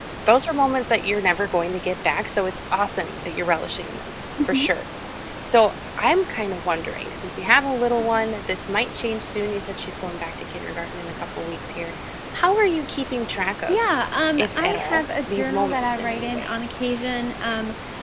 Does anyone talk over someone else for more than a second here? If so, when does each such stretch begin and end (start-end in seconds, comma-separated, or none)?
14.4-16.5